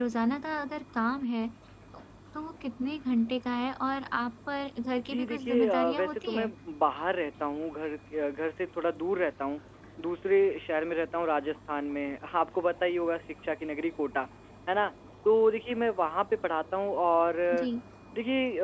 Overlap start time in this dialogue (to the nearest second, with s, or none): 5 s